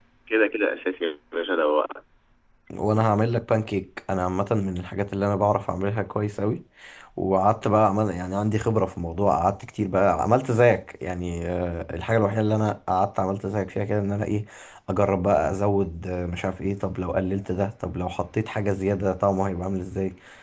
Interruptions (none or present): none